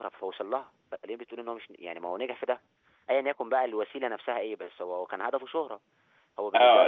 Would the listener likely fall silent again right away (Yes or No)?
No